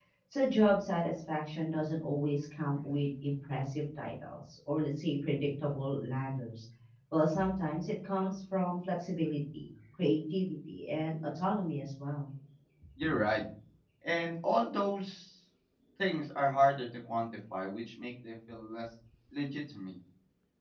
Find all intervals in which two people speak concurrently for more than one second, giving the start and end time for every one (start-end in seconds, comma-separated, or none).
none